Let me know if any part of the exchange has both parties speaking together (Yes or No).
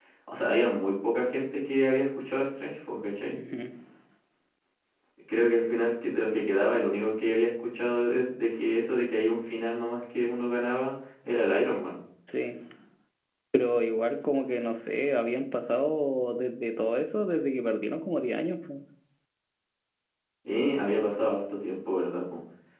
No